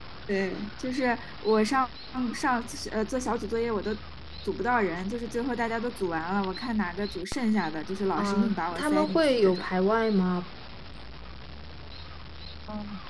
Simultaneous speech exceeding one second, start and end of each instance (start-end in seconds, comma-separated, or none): 8.2-9.7